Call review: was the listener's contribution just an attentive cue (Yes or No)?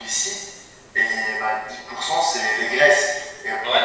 Yes